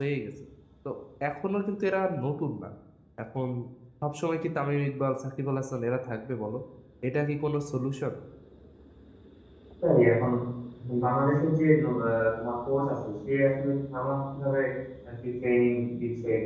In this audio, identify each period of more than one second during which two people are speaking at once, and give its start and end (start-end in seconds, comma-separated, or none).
none